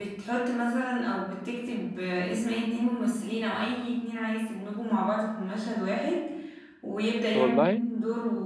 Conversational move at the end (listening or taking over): listening